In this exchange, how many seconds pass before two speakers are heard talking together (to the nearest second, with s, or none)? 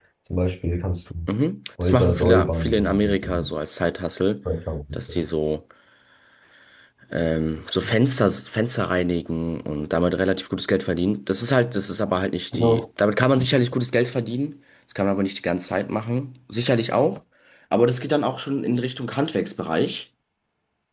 2 s